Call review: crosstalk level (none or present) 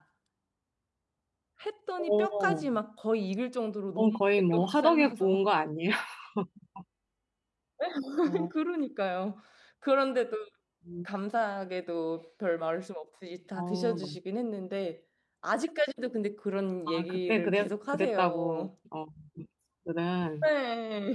present